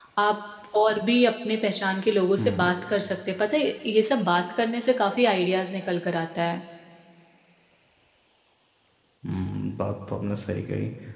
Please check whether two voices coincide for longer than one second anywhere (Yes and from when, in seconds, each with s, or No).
No